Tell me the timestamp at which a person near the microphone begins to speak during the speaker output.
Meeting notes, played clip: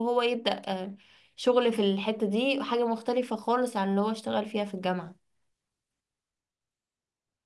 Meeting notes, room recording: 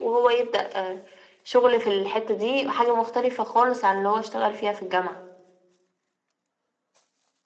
none

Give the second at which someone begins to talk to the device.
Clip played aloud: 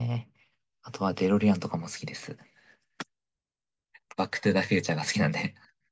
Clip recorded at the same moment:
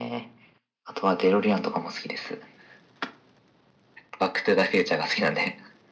none

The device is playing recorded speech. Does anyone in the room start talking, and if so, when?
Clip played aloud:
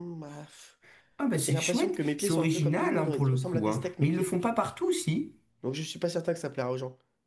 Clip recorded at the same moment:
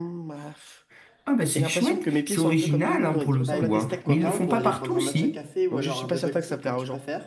3.4 s

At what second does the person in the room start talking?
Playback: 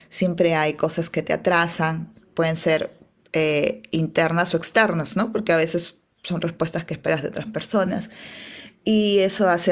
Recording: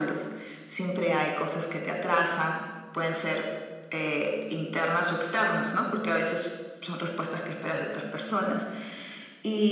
none

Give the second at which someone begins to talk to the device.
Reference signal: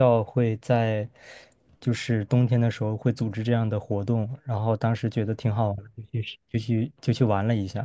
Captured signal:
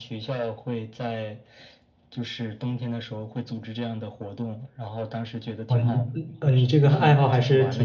5.7 s

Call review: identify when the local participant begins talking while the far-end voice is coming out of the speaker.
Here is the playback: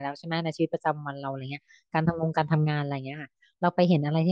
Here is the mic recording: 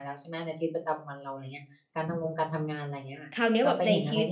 3.3 s

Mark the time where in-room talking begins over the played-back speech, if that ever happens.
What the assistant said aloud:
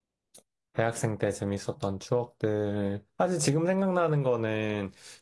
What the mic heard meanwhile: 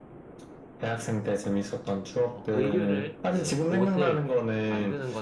2.3 s

